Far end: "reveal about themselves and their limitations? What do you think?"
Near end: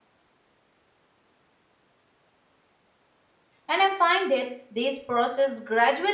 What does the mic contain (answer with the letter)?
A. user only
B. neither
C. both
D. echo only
A